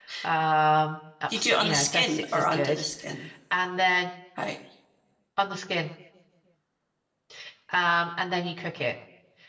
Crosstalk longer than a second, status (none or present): present